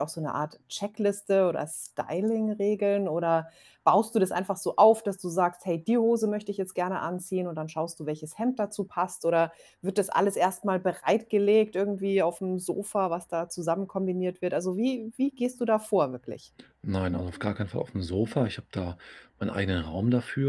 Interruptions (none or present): none